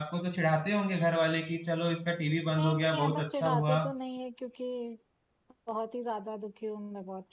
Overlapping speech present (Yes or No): Yes